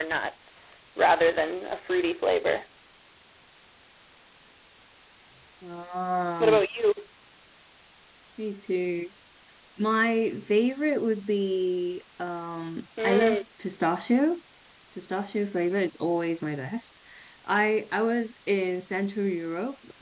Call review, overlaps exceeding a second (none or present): none